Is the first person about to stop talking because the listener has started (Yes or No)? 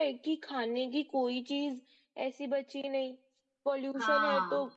No